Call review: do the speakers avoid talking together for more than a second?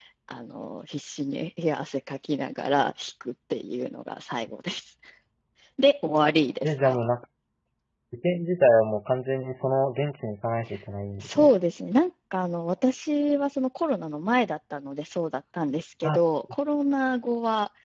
Yes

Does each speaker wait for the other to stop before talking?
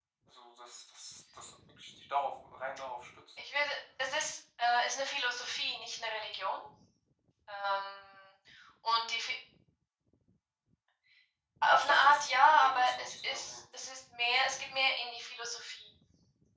No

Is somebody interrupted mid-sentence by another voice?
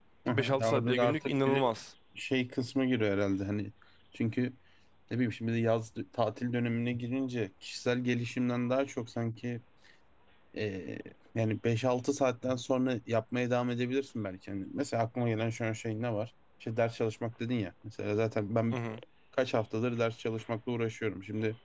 Yes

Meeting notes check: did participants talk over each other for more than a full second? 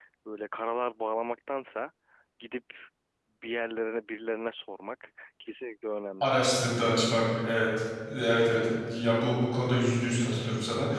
No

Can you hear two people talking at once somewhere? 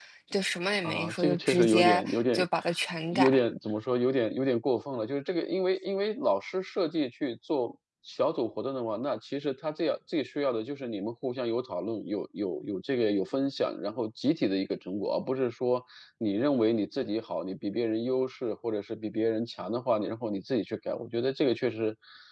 Yes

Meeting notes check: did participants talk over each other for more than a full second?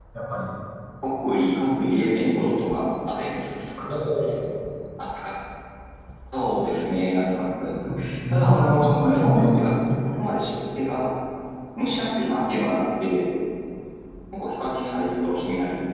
Yes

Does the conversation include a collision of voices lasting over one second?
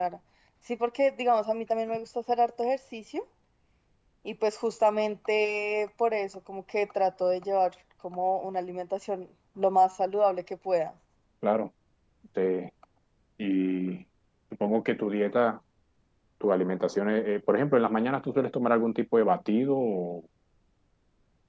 No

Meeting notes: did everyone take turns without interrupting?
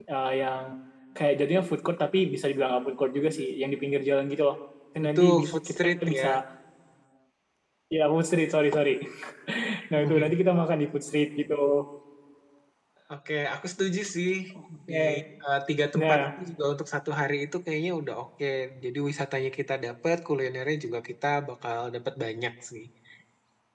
No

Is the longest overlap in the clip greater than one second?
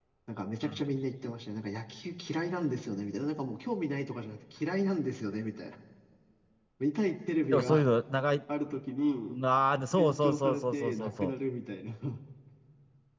Yes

